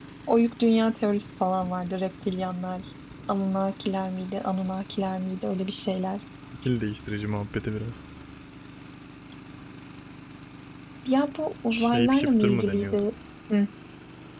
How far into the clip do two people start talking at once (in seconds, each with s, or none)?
11.7 s